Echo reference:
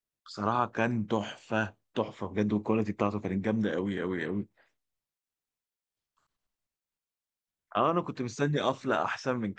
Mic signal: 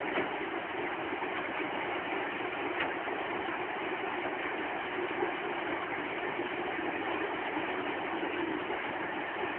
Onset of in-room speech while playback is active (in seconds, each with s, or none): none